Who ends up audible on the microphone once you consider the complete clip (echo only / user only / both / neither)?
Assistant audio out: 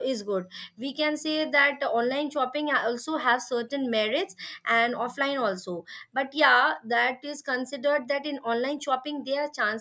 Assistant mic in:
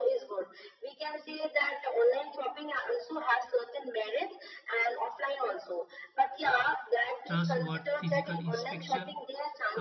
both